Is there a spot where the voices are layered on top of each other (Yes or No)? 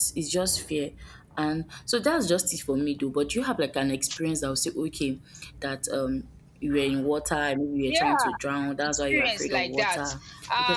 Yes